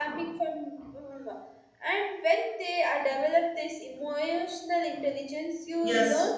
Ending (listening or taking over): listening